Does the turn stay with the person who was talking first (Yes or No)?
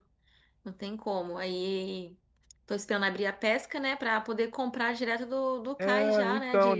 No